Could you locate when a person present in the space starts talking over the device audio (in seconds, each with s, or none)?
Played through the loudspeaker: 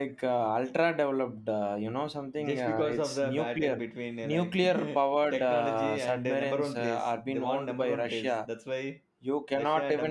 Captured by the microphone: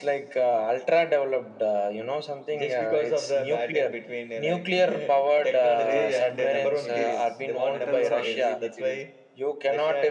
5.8 s